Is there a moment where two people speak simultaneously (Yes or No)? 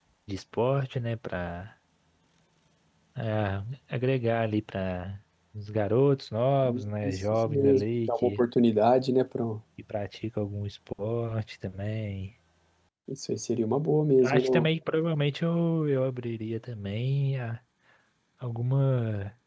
Yes